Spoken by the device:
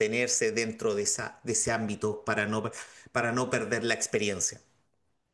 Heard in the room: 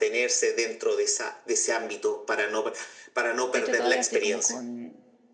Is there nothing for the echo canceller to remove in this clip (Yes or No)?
No